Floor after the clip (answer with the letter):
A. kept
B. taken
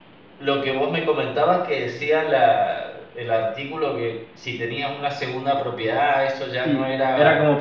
B